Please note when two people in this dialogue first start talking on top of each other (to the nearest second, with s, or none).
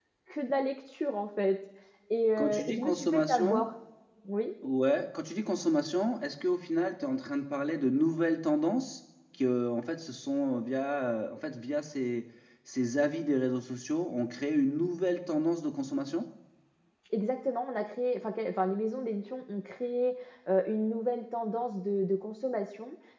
2 s